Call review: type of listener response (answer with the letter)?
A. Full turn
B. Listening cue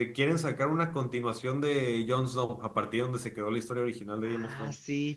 A